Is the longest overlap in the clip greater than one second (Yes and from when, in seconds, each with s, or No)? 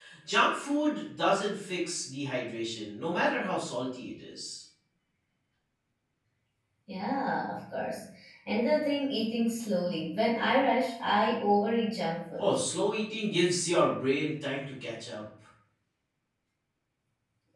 No